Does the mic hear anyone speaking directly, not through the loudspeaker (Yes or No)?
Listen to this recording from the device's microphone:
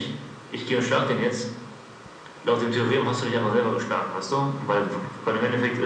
No